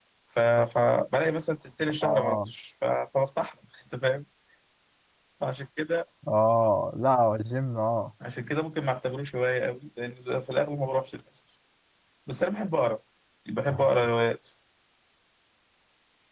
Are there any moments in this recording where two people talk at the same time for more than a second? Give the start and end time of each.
none

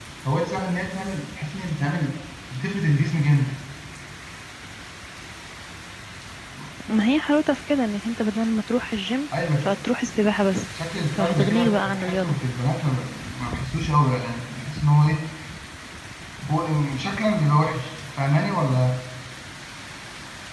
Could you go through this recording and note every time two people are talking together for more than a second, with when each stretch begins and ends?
11.1-12.4

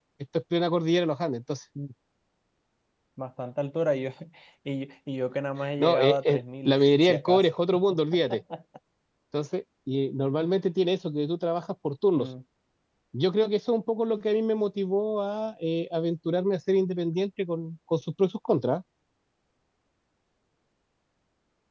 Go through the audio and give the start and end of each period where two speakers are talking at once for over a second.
5.8-7.6

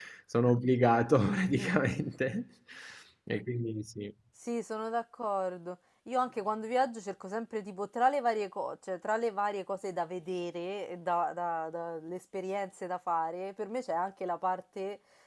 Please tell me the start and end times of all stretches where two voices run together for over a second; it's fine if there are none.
none

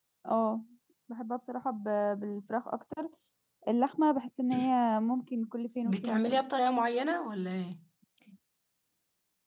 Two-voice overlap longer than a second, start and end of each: none

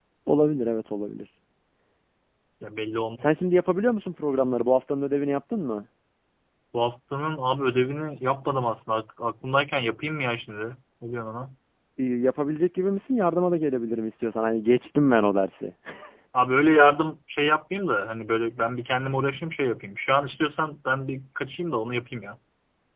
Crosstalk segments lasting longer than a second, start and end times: none

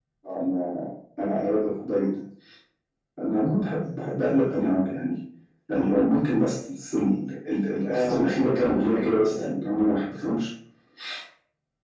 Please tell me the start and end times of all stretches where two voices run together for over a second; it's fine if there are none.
7.8-9.5

